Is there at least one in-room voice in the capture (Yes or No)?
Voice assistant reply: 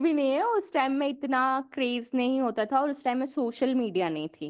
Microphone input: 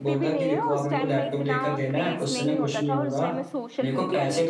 Yes